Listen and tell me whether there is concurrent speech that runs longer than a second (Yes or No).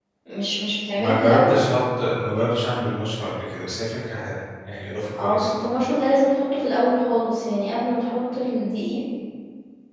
No